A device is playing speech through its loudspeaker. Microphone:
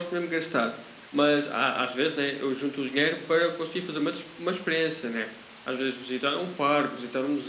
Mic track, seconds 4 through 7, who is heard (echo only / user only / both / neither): echo only